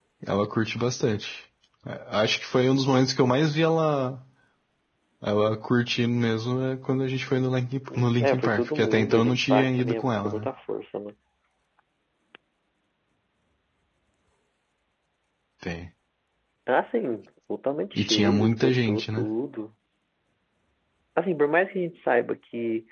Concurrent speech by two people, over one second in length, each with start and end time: 7.9-10.5, 18.0-19.3

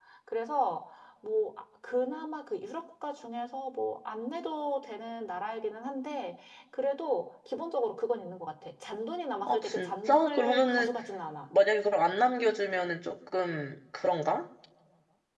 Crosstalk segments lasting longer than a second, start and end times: 9.5-10.9

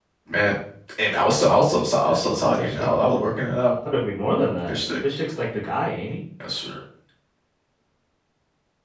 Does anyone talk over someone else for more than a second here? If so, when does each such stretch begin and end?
2.0-3.3

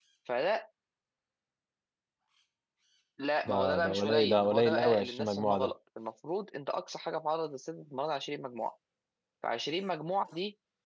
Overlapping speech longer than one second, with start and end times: 3.5-5.7

